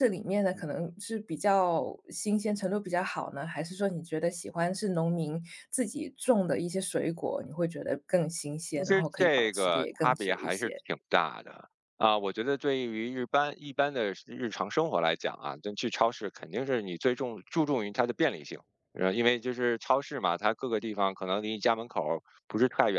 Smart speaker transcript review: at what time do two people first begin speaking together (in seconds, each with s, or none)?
8.8 s